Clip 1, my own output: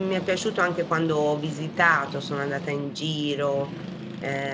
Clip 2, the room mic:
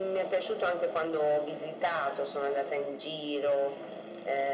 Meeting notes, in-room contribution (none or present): none